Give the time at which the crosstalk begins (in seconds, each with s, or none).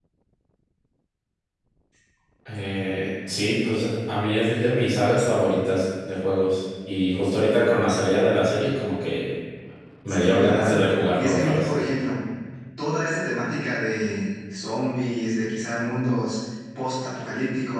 10.1 s